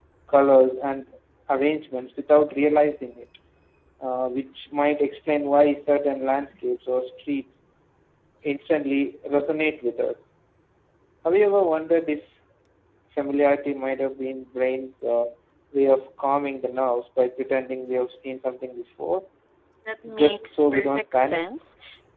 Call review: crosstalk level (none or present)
present